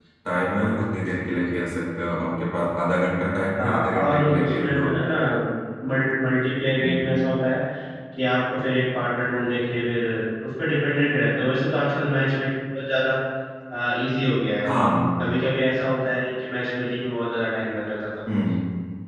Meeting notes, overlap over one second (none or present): present